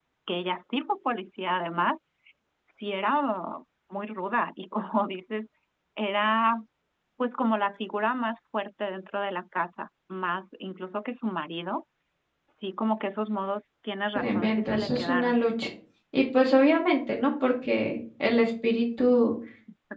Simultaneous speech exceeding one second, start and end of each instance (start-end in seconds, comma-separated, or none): 14.2-15.4